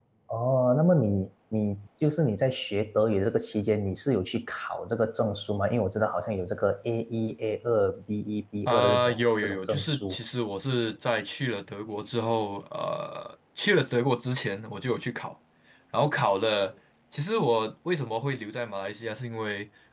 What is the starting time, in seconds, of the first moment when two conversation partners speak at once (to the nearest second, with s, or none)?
9 s